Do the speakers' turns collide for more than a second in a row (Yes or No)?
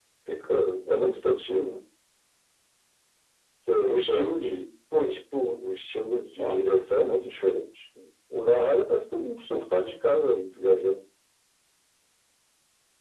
No